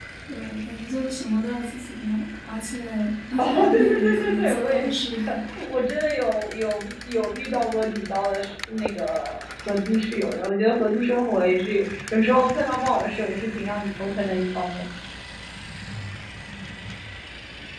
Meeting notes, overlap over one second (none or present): present